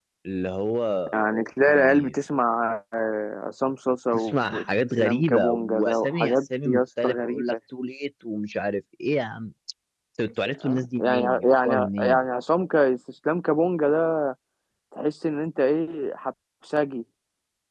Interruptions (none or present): present